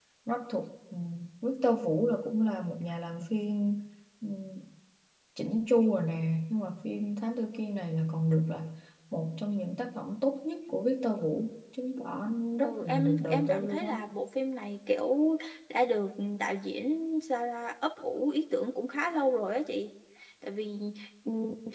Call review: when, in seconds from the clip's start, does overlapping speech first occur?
12.6 s

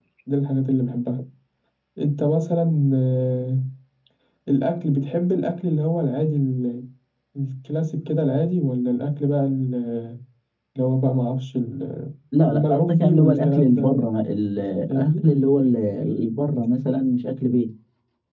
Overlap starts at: 12.4 s

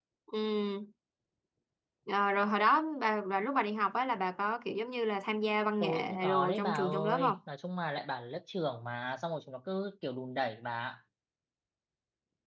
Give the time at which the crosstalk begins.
5.8 s

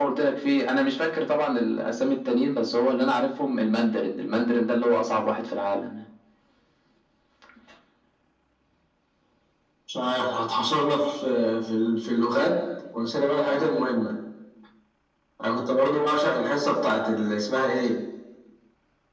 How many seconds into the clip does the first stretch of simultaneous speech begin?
none

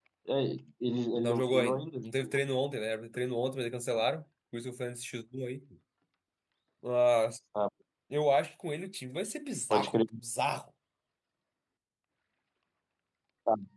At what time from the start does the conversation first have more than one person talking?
1.2 s

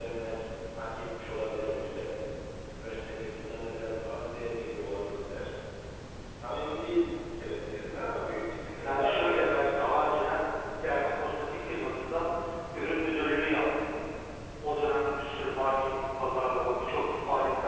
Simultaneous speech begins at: 8.8 s

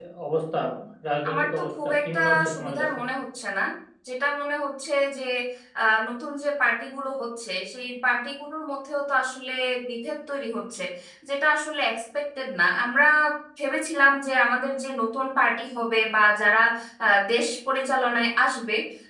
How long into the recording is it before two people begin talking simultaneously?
1.3 s

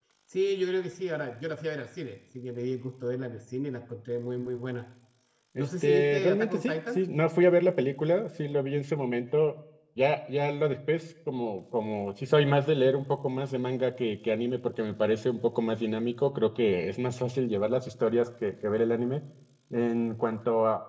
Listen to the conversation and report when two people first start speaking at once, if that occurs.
5.6 s

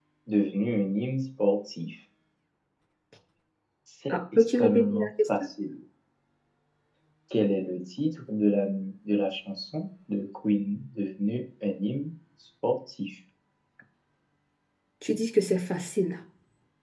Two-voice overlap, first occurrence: 4.1 s

